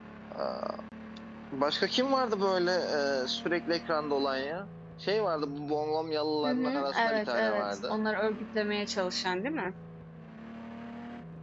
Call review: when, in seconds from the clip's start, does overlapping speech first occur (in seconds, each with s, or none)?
6.4 s